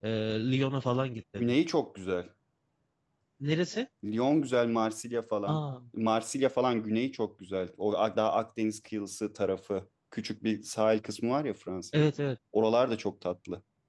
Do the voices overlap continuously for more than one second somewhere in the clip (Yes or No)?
No